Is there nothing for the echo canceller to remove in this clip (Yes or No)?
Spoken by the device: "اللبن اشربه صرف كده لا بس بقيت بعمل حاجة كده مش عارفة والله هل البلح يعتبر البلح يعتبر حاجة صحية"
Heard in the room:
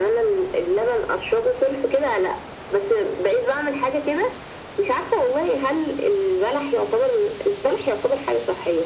No